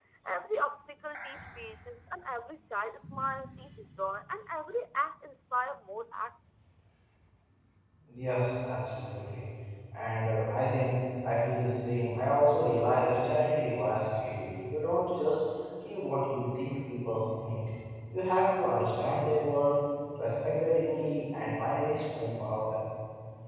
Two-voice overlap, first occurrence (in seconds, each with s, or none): none